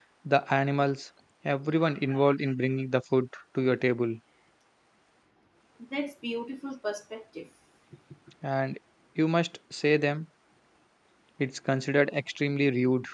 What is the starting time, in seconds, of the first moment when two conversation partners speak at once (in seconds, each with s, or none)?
none